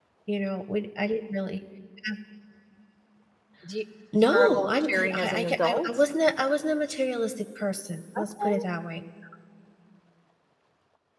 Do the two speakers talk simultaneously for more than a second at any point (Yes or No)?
Yes